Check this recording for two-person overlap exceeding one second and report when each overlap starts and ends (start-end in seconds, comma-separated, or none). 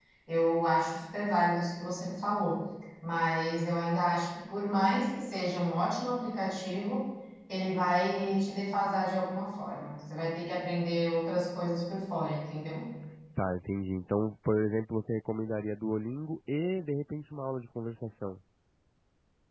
none